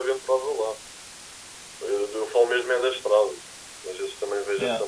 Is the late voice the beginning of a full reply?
No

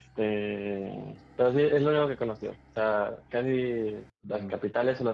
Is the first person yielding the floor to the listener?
No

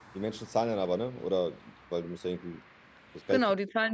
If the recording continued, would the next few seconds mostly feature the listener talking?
Yes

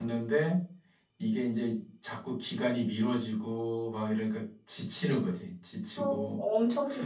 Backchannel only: No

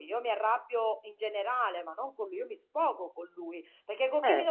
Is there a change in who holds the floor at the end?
No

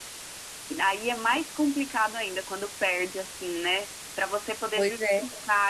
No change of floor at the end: Yes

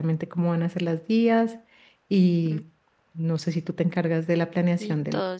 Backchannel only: No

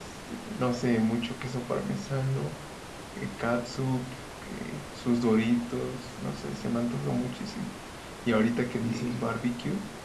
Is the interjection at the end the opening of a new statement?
No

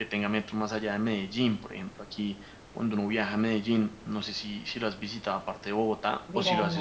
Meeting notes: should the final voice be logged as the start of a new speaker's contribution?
Yes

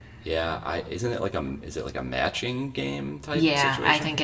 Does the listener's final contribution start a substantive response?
Yes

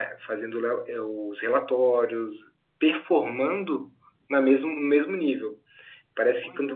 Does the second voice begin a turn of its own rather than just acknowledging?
No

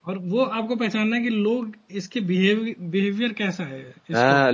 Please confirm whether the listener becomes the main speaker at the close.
Yes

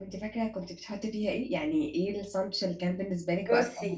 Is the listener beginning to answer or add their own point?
Yes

